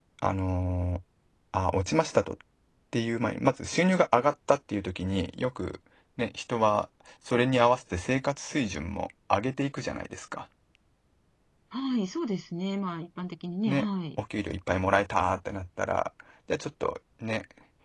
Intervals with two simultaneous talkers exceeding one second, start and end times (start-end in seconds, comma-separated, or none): none